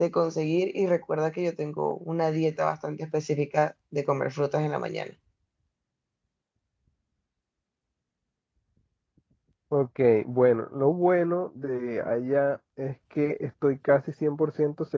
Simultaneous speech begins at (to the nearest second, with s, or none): none